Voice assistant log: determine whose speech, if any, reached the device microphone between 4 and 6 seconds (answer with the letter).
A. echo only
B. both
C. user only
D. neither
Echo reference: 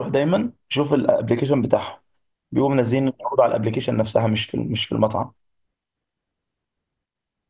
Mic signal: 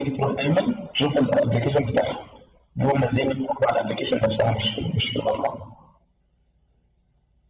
A